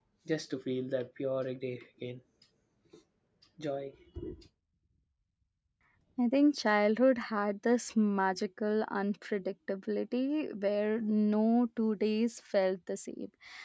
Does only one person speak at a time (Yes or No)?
Yes